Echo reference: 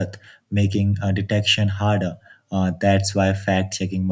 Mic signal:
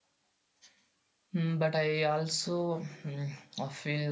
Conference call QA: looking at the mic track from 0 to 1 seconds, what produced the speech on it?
neither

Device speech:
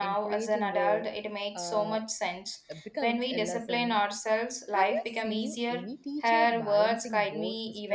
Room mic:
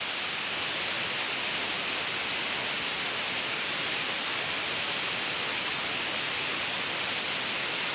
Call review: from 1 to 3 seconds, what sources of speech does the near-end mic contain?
neither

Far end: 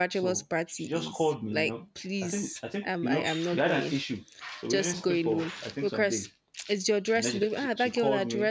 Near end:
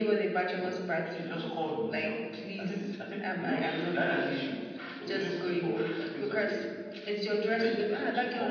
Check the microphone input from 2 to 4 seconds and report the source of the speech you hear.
echo only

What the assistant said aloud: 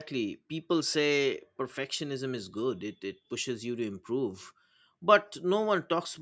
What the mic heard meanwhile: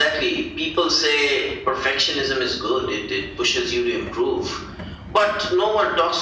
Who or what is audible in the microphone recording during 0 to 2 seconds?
echo only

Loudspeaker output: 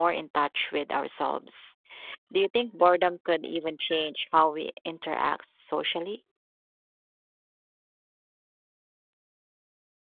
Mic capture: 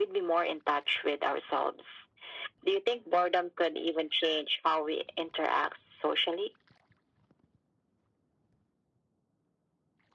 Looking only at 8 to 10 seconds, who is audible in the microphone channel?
neither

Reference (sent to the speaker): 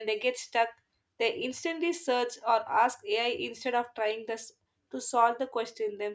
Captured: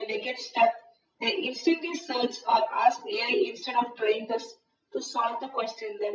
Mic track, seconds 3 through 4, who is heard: echo only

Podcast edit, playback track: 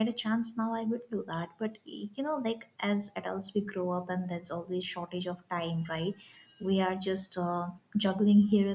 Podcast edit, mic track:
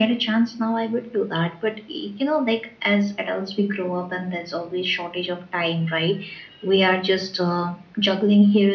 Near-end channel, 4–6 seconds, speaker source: echo only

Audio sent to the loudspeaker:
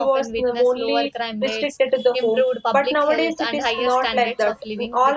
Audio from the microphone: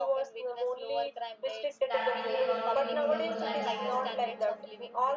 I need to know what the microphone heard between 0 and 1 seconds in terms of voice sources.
echo only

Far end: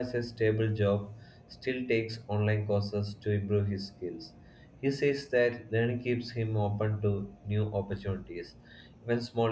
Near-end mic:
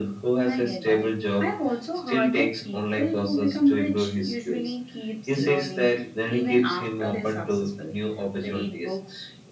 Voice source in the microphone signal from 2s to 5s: both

